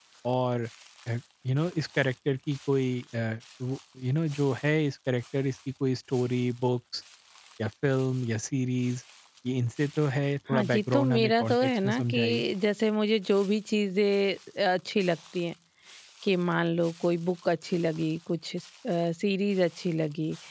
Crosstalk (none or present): present